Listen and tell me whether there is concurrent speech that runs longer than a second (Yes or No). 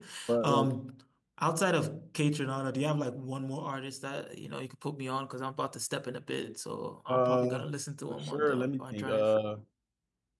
Yes